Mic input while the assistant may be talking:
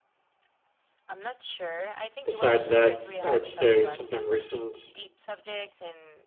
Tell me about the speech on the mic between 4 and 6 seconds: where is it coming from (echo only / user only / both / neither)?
both